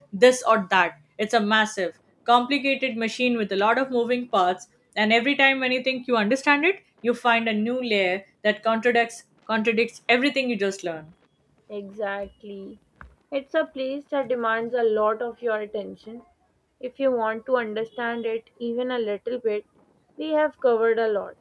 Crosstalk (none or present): none